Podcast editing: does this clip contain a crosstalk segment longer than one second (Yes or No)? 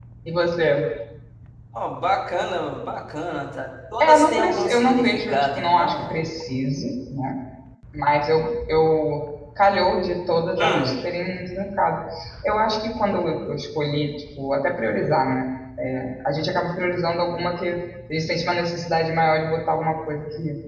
Yes